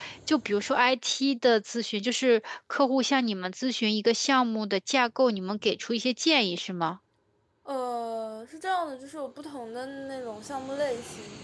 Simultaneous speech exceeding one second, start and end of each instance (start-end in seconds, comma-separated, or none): none